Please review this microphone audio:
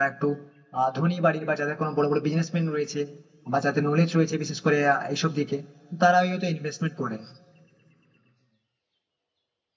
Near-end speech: present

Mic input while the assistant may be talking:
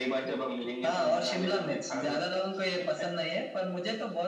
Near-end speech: none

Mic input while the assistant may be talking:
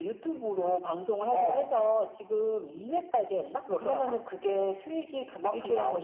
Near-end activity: none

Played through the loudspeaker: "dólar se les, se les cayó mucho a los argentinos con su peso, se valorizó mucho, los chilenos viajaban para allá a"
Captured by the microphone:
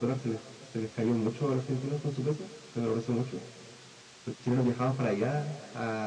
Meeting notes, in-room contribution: none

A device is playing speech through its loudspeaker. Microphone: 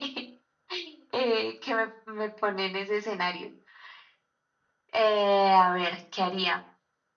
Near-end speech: none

